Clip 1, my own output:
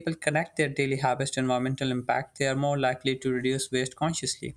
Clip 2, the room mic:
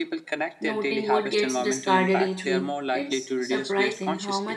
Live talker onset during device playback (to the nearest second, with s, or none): 1 s